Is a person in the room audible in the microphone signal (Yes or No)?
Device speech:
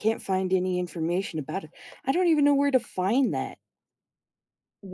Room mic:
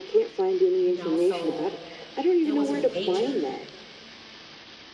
Yes